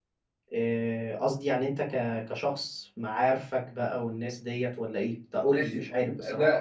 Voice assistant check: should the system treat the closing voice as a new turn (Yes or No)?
Yes